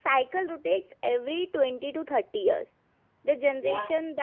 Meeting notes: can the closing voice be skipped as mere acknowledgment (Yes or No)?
Yes